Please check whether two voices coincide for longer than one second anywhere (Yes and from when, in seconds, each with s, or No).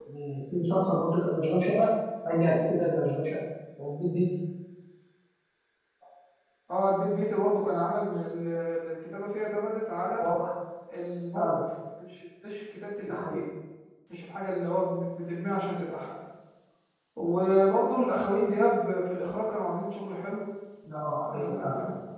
No